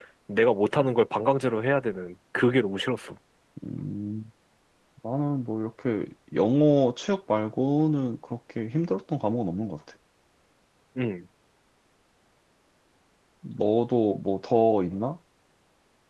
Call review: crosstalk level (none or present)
none